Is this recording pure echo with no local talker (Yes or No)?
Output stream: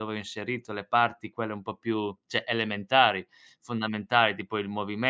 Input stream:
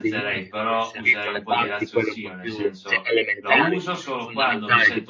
No